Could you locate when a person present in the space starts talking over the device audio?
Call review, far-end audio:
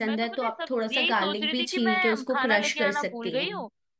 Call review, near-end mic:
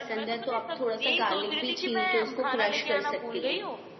none

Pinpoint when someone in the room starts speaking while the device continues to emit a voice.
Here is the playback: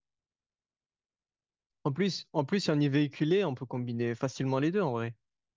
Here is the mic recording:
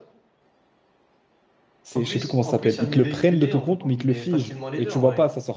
1.8 s

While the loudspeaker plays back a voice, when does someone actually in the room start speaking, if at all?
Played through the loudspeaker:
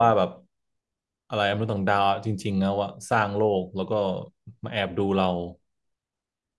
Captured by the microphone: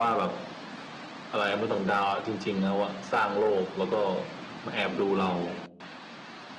none

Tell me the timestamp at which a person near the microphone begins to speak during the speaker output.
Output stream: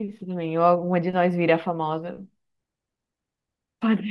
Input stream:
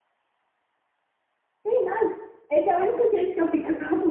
1.6 s

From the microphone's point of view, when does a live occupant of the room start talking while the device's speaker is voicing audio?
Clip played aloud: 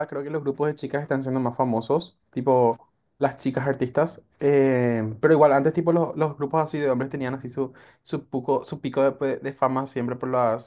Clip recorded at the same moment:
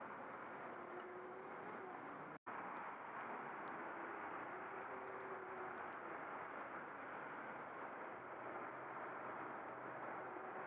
none

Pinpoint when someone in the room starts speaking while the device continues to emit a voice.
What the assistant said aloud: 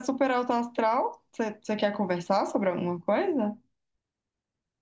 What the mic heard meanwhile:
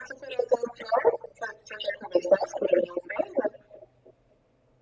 none

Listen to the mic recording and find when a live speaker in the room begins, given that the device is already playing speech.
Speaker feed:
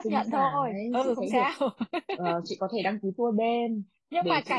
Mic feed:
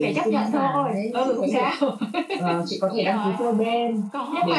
2.8 s

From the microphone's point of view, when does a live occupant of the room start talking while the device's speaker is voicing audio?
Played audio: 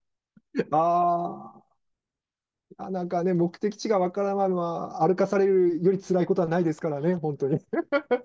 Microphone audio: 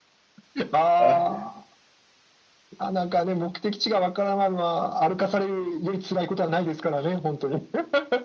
1.0 s

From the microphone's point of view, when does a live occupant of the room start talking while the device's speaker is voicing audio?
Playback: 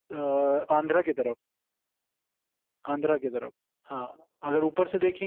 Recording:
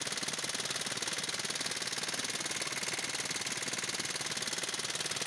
none

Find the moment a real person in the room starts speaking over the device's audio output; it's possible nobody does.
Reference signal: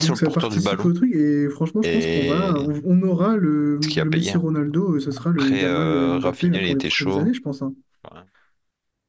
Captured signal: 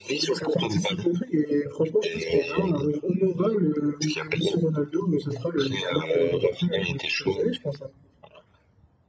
none

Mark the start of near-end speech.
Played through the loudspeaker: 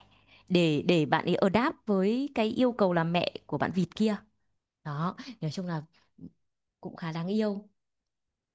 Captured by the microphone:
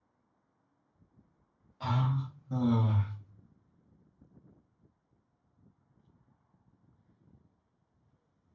1.8 s

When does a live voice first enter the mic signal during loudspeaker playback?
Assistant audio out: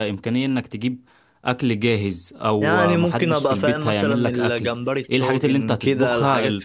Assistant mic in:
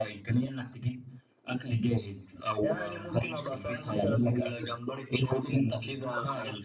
none

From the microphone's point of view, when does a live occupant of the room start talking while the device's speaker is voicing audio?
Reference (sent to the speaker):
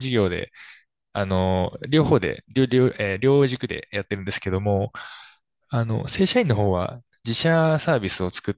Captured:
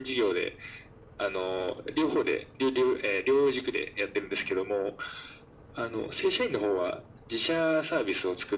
none

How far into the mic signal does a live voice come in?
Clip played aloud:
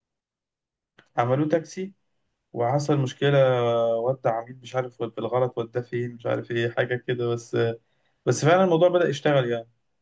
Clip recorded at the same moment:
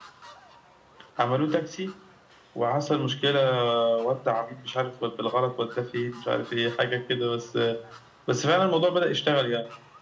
none

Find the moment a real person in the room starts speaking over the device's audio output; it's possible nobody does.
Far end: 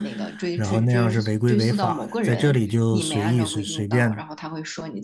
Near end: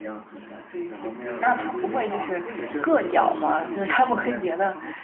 1.4 s

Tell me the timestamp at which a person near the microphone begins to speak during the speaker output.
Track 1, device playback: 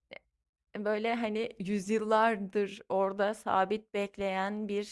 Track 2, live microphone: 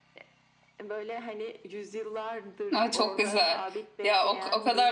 2.8 s

